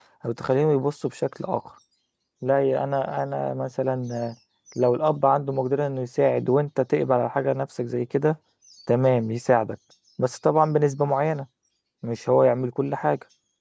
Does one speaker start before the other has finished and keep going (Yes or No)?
No